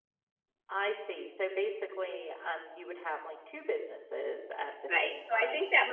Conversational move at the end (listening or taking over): taking over